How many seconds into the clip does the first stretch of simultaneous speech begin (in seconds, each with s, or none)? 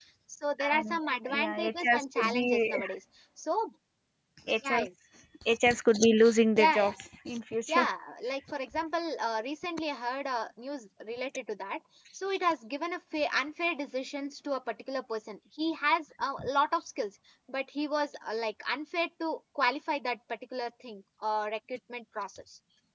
0.7 s